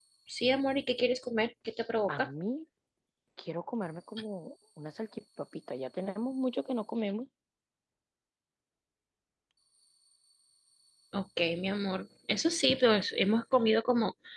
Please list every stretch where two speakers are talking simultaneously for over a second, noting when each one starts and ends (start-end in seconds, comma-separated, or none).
none